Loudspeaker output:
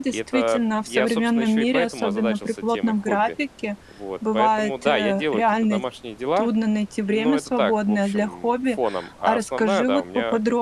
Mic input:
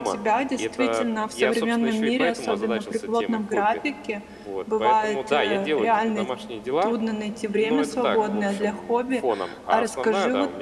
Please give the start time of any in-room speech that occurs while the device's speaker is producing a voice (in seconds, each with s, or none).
none